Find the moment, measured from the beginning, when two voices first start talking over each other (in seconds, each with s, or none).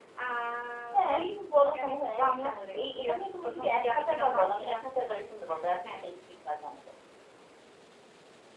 0.9 s